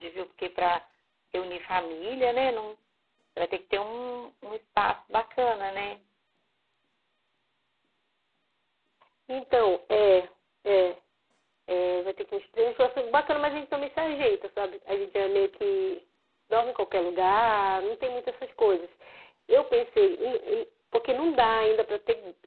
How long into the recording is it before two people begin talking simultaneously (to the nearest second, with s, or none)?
none